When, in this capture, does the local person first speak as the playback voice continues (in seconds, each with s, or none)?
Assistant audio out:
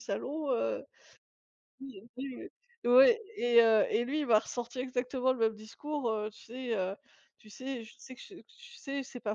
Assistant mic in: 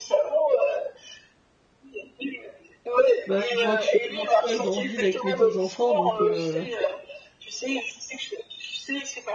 3.2 s